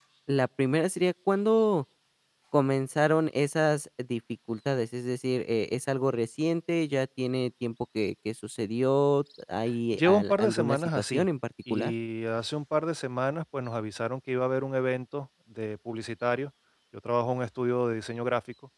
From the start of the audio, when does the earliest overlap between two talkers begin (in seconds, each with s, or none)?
9.9 s